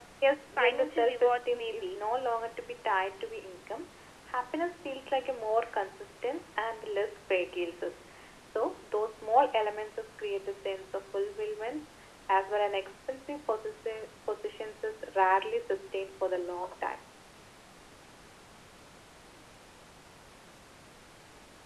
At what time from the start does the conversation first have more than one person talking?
0.6 s

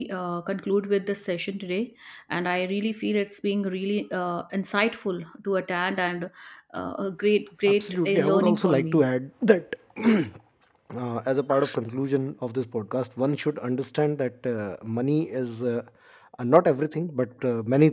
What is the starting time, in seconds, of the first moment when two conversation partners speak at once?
7.7 s

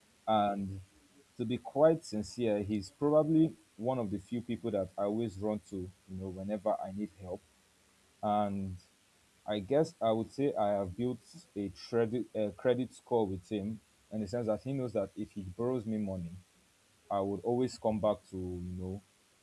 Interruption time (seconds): none

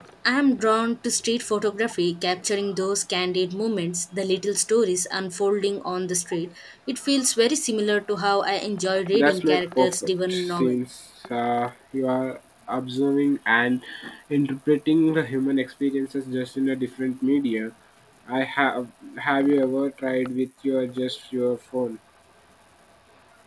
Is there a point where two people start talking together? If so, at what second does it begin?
9.1 s

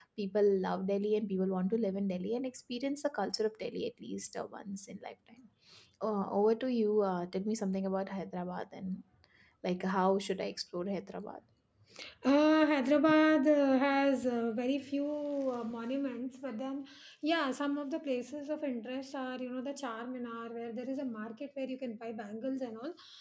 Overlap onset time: none

